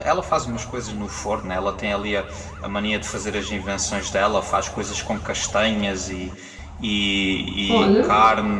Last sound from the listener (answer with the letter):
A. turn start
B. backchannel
B